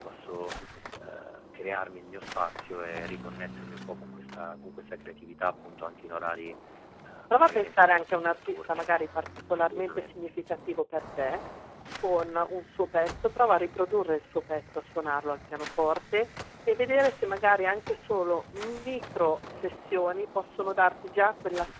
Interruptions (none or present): present